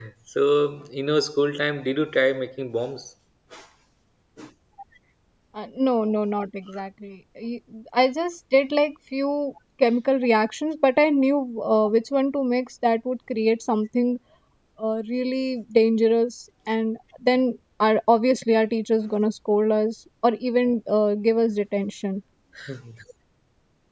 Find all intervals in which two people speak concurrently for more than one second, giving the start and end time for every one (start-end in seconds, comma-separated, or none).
none